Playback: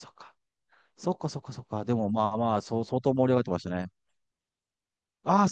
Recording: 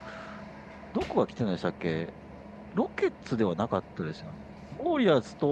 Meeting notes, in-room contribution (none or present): present